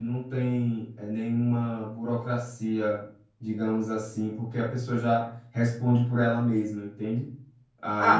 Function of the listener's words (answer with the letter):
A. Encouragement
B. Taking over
B